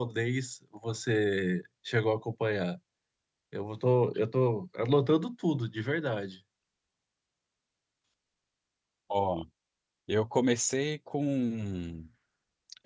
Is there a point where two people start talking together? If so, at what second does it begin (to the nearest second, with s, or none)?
none